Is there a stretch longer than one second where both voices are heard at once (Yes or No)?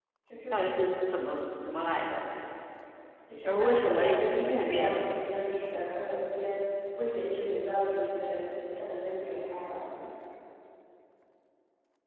Yes